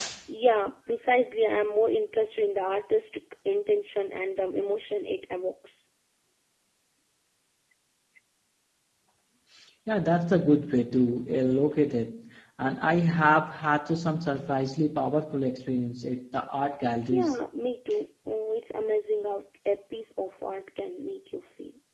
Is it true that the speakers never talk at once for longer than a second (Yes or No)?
Yes